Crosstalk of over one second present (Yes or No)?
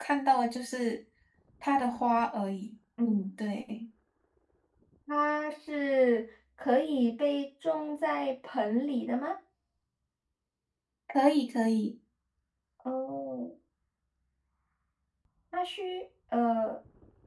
No